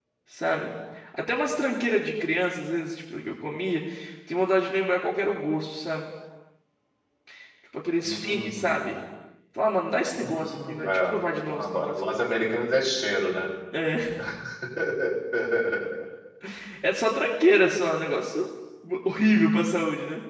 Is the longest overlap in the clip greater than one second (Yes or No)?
Yes